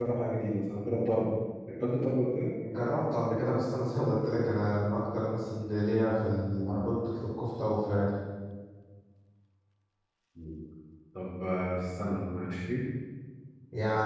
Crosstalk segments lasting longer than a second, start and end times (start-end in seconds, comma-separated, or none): none